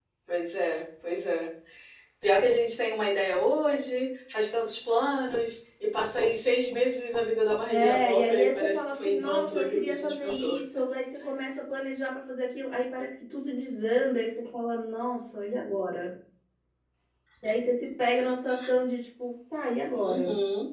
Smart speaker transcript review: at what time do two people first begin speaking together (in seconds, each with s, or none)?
7.7 s